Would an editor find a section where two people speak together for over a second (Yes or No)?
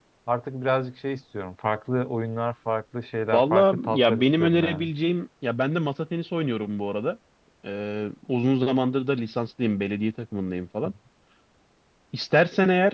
Yes